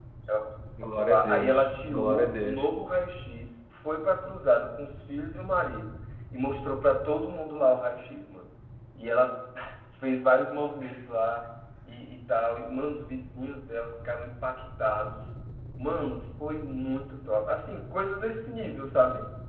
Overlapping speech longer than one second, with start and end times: 1.0-2.7

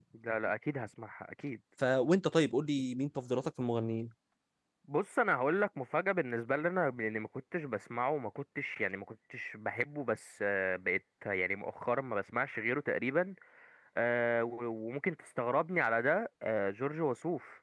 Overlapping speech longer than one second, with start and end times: none

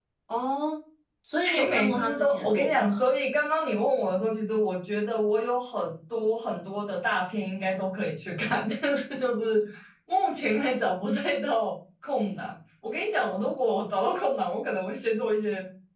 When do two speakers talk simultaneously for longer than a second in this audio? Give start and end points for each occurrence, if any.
1.5-3.1

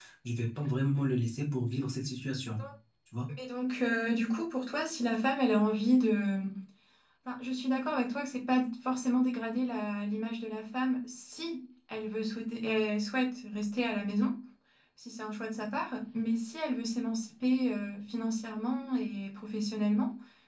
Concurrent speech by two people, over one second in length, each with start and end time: none

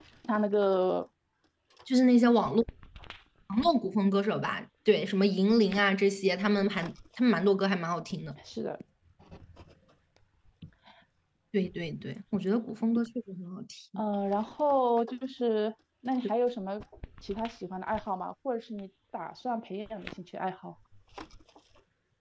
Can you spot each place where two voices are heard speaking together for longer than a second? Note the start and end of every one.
none

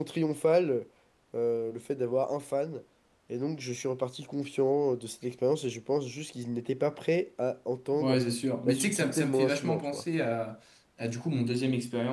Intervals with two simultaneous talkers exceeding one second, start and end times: 8.7-10.0

